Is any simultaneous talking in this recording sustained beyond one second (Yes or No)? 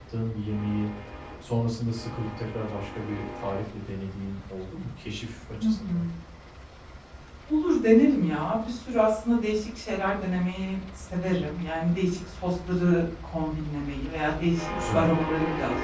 No